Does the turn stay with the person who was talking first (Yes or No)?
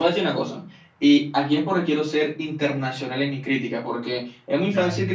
Yes